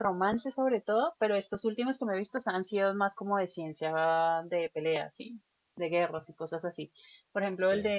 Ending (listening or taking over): listening